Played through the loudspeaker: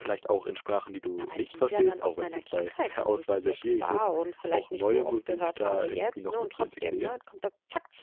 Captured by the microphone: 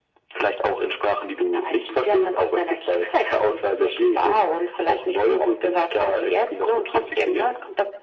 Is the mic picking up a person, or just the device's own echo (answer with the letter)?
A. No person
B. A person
A